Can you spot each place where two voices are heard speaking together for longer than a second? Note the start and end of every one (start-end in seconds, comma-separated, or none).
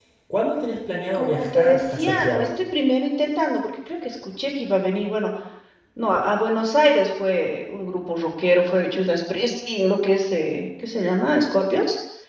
1.1-2.5